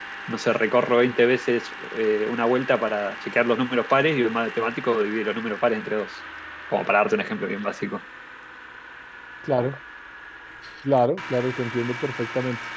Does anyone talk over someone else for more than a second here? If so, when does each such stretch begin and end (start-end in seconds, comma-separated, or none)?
none